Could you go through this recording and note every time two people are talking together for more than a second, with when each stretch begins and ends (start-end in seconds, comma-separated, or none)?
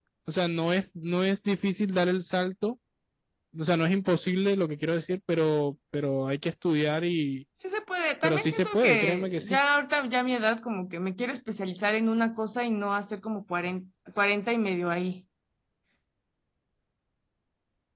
8.2-9.6